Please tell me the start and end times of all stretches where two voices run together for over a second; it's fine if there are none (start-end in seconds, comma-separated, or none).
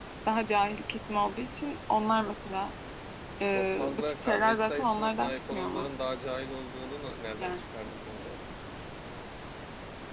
3.5-5.9